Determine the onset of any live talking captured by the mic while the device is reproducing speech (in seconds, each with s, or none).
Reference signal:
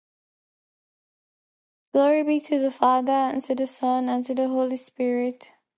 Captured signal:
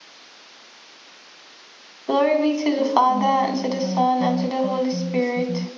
2.8 s